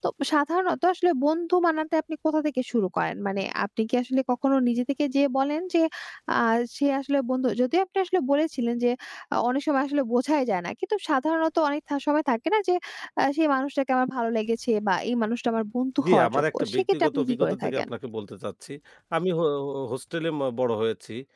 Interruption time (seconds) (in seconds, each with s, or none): 16.0 s